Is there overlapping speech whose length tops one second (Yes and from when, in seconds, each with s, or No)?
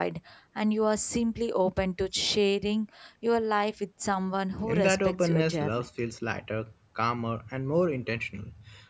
Yes, from 4.6 s